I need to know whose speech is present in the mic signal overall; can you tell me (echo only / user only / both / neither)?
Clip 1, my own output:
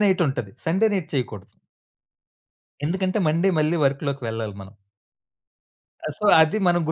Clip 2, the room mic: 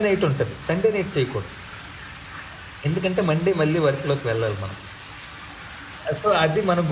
echo only